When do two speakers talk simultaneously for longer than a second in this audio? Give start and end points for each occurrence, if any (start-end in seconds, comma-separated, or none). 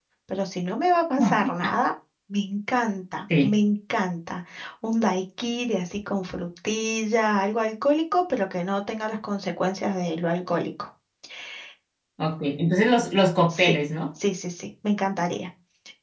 none